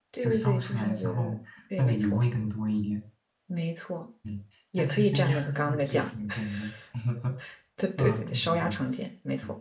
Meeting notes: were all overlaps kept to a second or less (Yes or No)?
No